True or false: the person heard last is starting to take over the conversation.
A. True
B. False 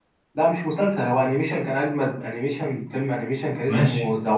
B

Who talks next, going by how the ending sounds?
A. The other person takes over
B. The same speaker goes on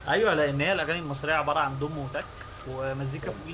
B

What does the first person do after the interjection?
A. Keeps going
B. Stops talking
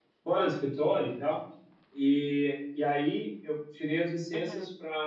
A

